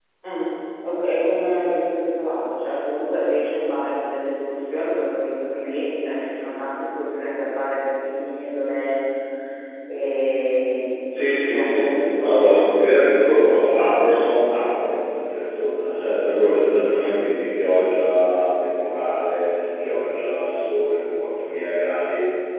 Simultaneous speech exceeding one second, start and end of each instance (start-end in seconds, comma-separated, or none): 11.1-13.5